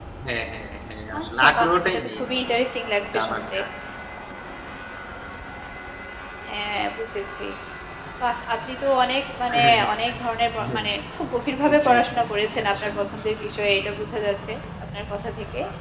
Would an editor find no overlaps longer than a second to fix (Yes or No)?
No